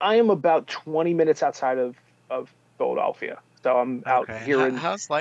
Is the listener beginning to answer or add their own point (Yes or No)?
Yes